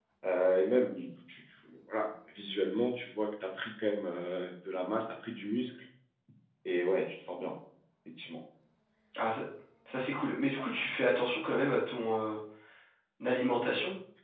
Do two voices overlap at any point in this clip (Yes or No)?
No